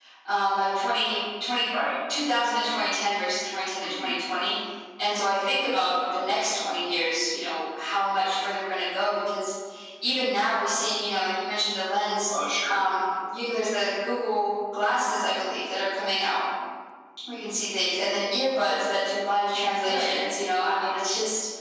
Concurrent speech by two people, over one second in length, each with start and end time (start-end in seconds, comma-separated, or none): none